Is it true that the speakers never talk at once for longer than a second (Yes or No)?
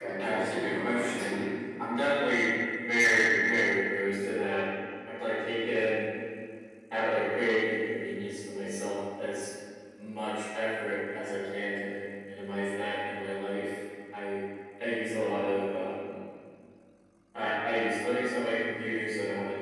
No